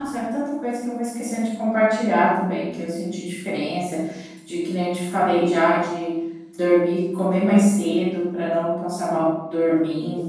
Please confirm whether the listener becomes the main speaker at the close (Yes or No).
Yes